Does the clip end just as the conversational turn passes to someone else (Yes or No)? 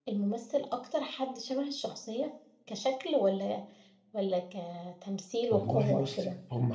Yes